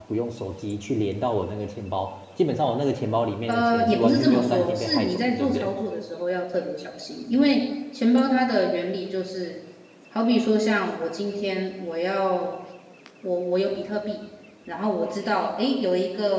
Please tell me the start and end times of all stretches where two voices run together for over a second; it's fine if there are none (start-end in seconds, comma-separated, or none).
3.5-5.7